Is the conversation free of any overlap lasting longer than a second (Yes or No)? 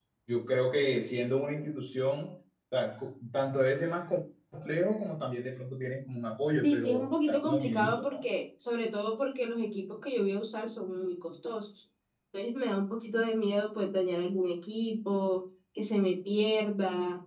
No